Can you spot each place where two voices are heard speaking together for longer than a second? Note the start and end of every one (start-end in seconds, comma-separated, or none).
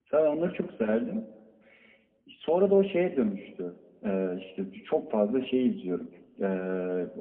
none